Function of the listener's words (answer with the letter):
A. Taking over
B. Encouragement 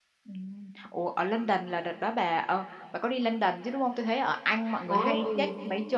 B